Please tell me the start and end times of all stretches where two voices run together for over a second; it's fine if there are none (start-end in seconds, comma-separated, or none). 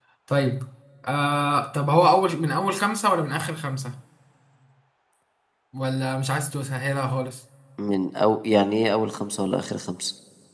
none